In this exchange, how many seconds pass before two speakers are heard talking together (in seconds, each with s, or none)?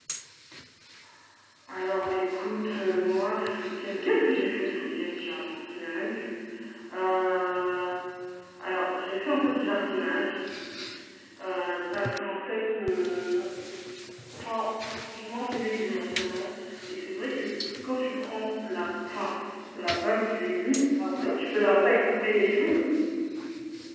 21.2 s